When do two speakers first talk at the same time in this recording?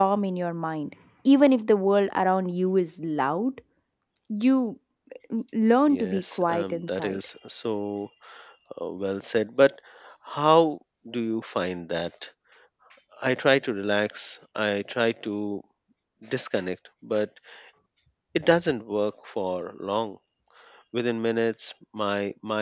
5.9 s

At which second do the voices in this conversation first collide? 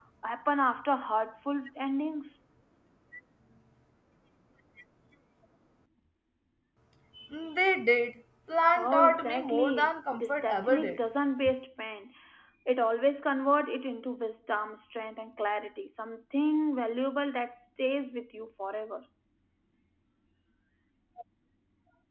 8.8 s

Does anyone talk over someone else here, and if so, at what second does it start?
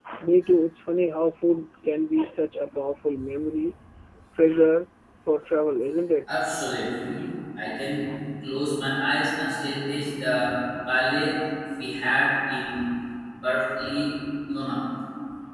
none

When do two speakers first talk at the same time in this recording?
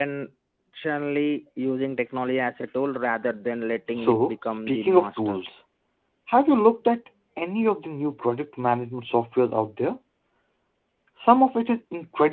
3.9 s

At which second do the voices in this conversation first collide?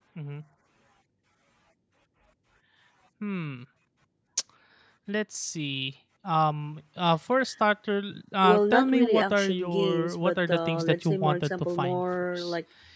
8.4 s

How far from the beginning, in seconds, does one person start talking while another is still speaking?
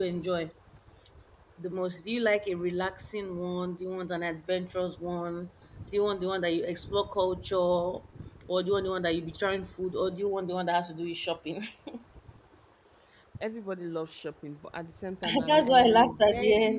15.2 s

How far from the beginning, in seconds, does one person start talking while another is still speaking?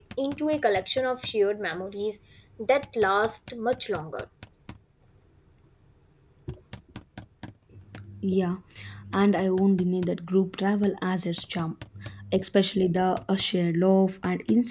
none

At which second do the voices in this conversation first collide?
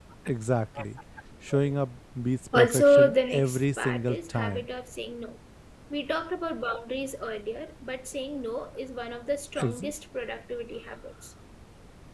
2.5 s

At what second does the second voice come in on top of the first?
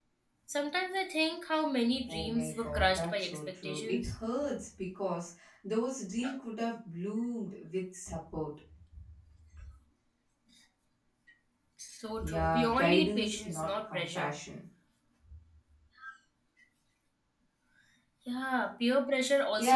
2.1 s

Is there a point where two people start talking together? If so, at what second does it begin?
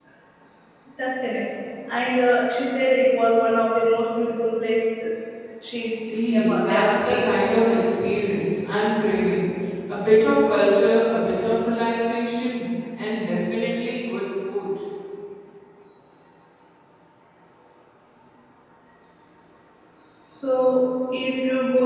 5.9 s

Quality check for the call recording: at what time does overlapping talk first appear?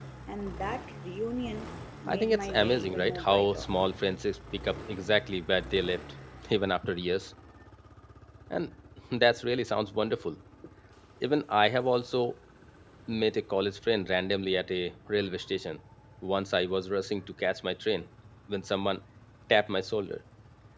2.1 s

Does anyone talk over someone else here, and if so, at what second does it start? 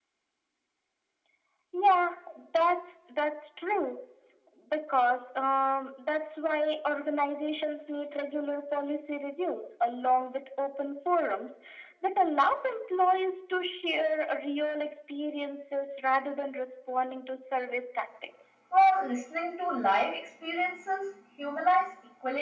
none

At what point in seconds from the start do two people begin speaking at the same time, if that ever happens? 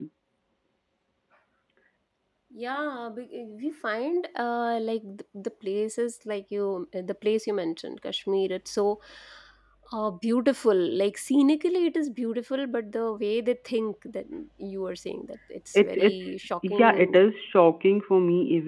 15.7 s

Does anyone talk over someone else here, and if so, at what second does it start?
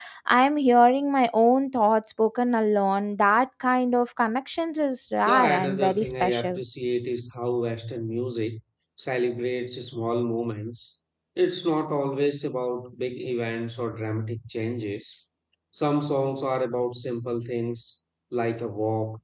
5.3 s

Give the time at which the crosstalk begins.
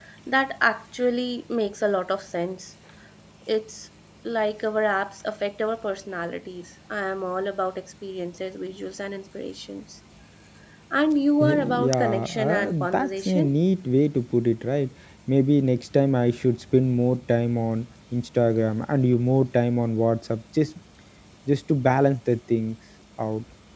11.4 s

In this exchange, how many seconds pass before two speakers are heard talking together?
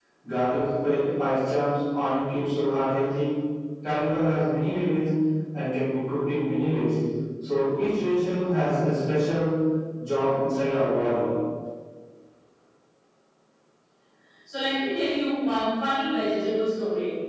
none

